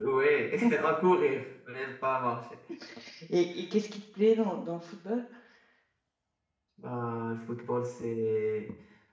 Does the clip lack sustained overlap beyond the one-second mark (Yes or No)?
Yes